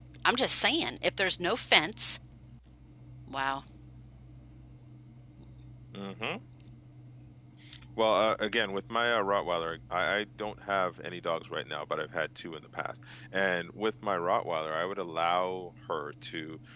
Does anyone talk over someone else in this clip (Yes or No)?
No